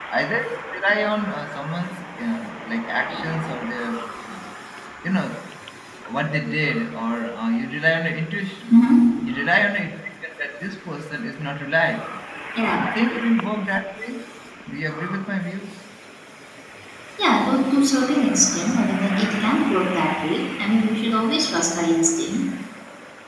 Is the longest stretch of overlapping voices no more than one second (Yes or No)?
Yes